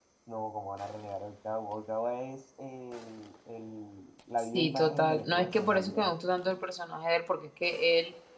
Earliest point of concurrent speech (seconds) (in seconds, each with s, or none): 4.5 s